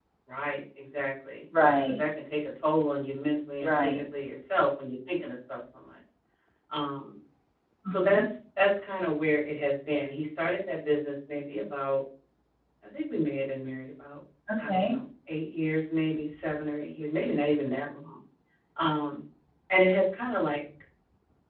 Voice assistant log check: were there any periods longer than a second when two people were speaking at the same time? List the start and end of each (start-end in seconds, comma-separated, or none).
none